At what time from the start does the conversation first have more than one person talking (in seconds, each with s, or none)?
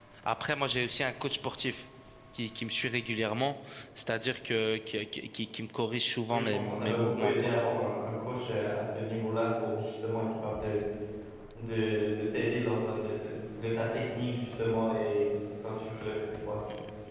6.3 s